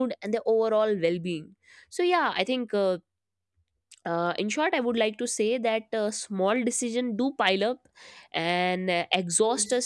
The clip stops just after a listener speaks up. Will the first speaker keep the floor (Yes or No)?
Yes